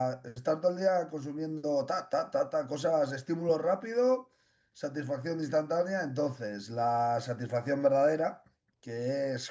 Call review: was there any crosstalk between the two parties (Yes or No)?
No